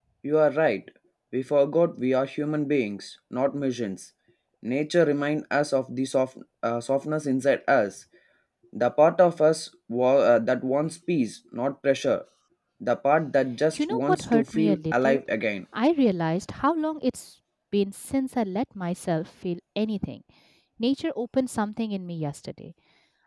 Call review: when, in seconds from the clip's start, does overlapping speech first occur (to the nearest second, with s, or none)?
14 s